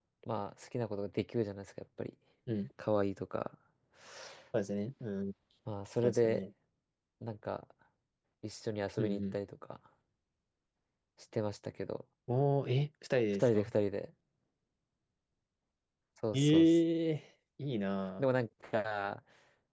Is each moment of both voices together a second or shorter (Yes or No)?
Yes